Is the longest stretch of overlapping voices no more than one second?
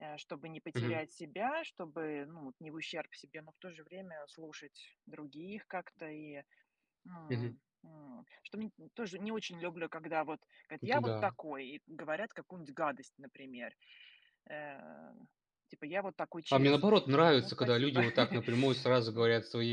No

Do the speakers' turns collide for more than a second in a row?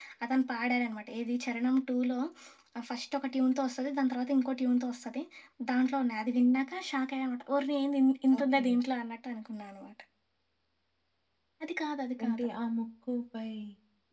No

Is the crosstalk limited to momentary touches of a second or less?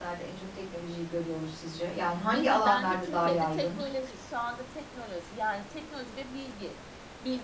No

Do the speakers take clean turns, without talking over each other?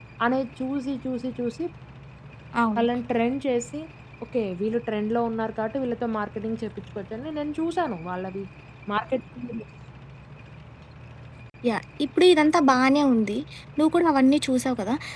Yes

